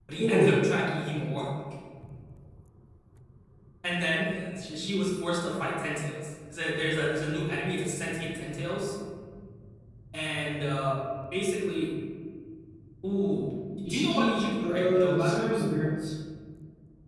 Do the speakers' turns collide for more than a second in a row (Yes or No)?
Yes